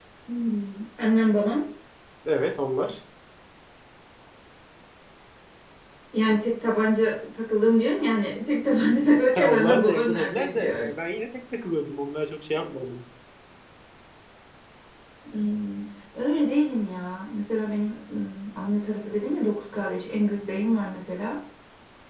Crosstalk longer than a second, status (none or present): present